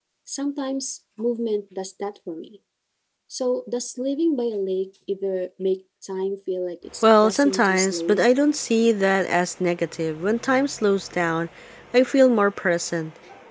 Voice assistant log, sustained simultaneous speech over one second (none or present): present